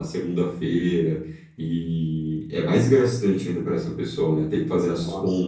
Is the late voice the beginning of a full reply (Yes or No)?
No